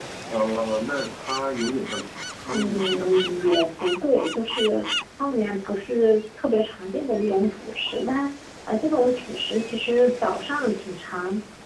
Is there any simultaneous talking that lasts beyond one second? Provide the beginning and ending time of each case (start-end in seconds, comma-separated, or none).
2.5-3.7